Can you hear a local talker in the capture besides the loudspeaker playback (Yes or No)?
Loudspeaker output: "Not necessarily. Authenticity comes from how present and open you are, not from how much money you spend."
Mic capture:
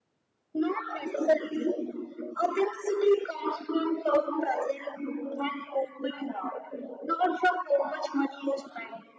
No